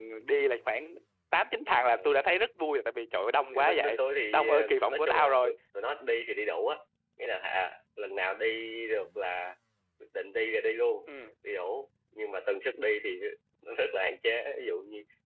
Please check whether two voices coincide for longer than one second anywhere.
Yes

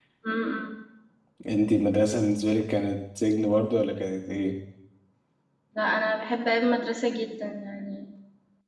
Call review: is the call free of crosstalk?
Yes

